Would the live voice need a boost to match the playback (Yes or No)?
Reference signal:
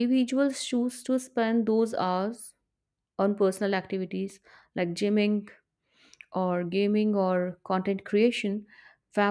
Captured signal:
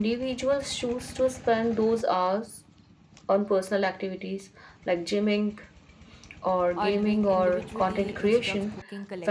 Yes